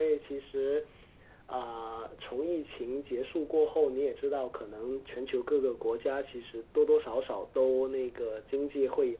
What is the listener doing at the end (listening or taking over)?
listening